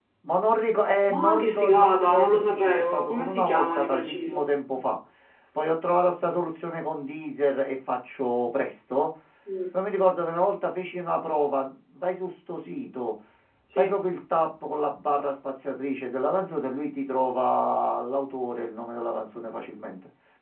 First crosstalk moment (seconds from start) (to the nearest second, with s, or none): 1 s